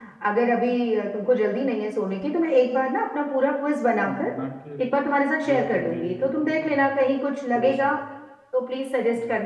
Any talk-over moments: Yes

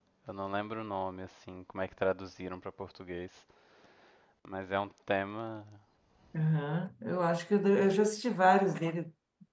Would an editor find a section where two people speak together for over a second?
No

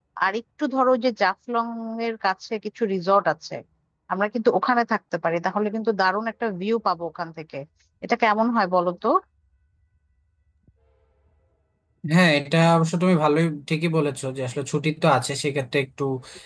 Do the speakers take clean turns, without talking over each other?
Yes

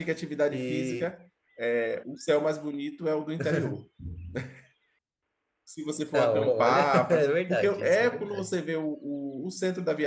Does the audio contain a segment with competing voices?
Yes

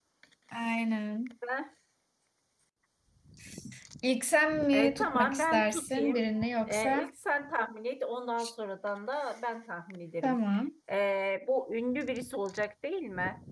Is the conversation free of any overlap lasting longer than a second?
No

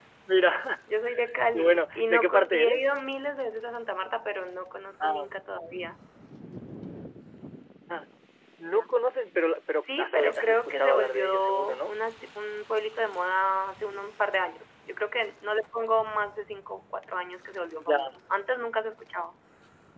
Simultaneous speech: Yes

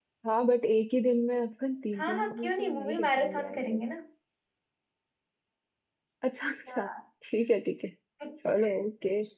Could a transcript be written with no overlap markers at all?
No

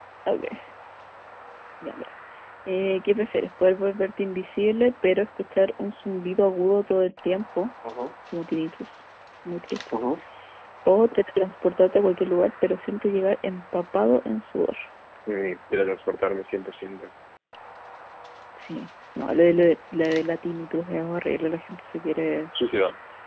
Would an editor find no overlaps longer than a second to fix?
Yes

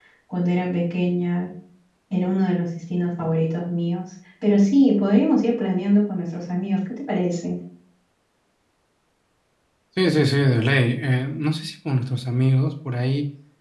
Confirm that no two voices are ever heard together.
Yes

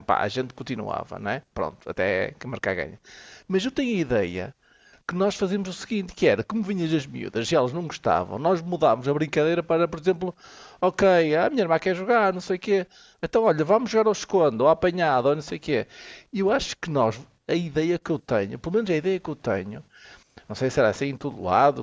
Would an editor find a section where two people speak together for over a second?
No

